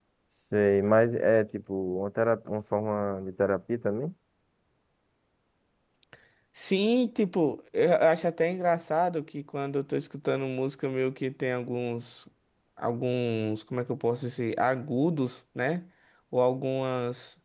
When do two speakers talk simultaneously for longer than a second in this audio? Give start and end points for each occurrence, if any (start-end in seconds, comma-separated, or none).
none